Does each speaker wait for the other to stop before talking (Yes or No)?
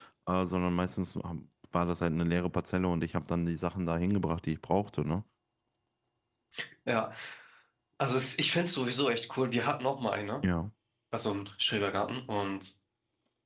Yes